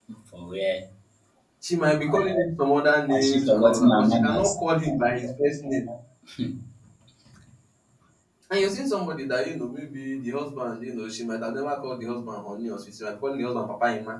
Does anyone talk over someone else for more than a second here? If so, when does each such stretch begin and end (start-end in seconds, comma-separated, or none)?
3.1-4.5